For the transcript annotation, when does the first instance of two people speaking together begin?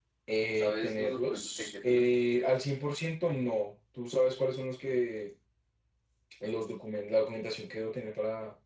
0.6 s

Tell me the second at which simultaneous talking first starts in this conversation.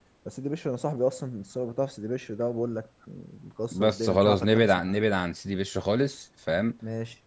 3.7 s

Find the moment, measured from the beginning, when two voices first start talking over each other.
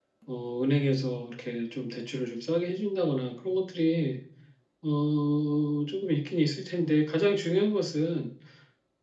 none

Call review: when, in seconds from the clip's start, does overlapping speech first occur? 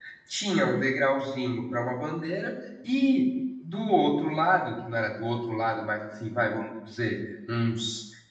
none

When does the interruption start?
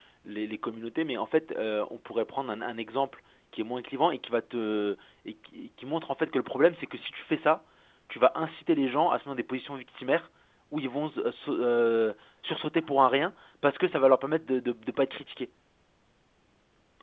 none

